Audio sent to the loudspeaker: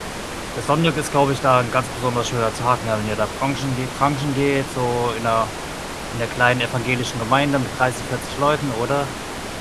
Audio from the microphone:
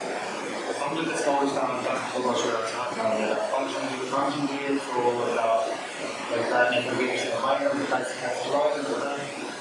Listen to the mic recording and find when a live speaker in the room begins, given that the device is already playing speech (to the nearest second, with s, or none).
none